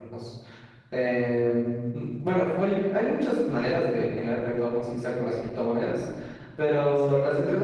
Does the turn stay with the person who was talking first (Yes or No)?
Yes